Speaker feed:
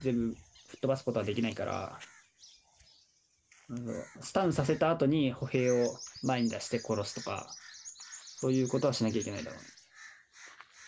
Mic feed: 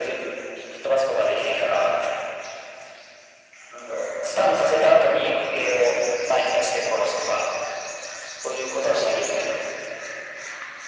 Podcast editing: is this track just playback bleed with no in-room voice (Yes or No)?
Yes